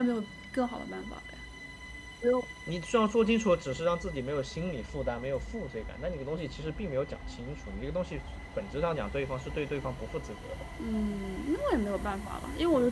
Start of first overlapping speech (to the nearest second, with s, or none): none